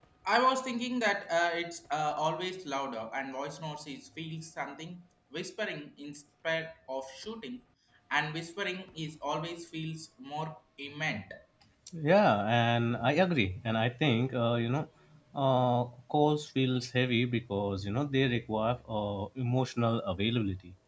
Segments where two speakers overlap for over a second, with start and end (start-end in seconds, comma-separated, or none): none